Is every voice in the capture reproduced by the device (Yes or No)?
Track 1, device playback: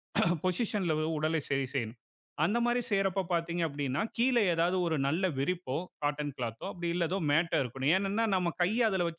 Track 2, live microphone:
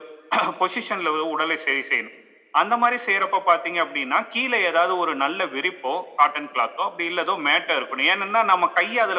Yes